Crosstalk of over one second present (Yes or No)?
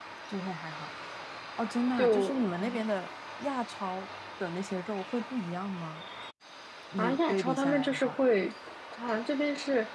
Yes